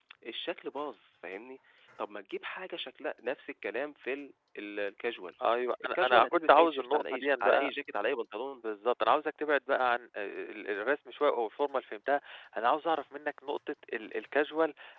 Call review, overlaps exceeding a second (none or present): present